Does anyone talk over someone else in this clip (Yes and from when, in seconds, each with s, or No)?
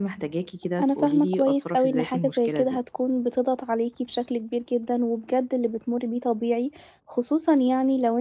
Yes, from 0.8 s